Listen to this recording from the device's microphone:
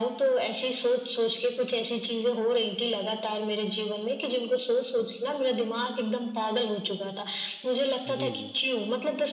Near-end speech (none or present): present